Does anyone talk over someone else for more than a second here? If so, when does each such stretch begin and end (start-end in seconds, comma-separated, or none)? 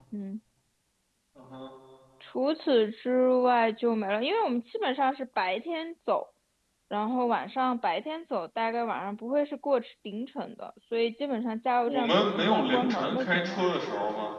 11.9-13.6